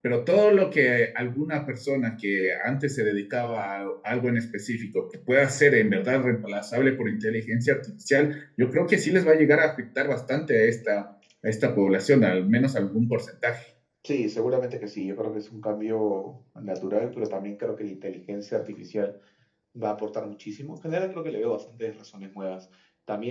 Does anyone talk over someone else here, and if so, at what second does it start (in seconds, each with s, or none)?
none